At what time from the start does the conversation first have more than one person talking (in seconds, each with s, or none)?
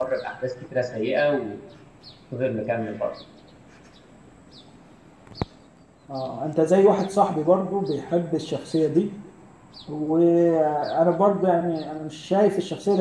none